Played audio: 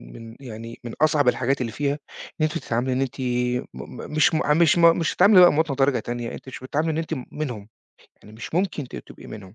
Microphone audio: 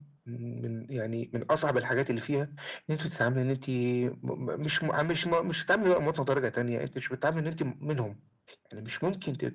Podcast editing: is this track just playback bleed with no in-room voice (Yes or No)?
Yes